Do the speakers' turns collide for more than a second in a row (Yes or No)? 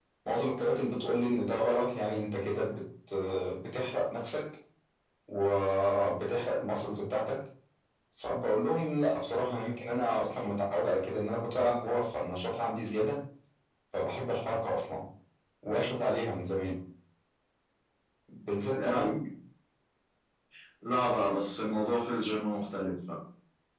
No